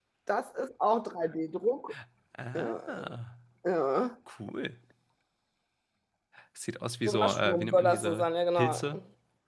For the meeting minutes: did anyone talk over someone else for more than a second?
Yes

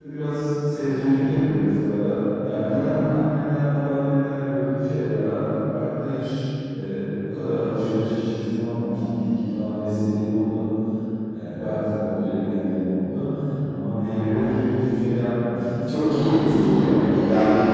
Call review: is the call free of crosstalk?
No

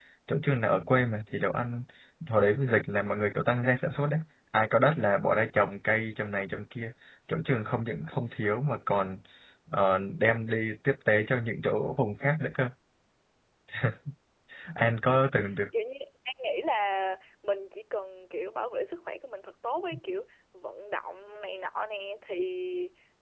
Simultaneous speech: No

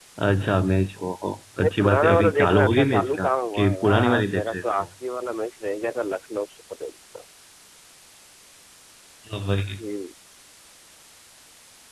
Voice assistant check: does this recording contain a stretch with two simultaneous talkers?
Yes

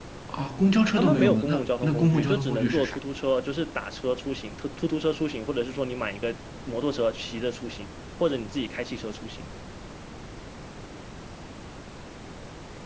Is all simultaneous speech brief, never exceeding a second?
No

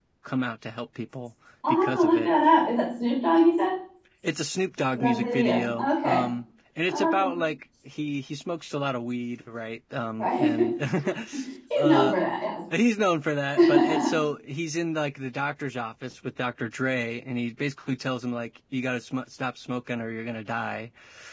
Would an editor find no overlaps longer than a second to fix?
No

